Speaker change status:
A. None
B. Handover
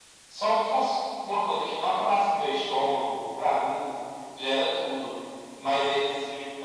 A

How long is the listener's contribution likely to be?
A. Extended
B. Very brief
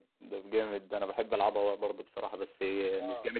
A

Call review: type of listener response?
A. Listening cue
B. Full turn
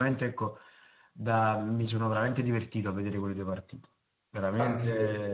B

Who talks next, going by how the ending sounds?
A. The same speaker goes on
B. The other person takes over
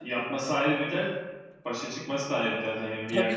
B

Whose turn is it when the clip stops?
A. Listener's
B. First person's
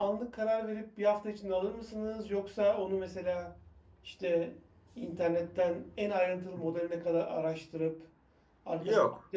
B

